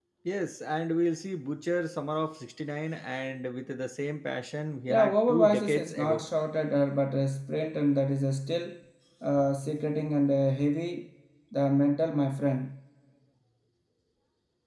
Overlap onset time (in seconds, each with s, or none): 4.9 s